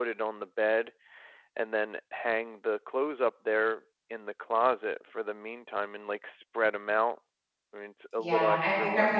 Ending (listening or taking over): taking over